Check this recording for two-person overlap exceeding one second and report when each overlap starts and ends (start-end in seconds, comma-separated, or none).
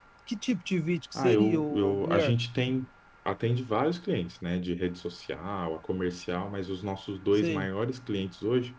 1.2-2.4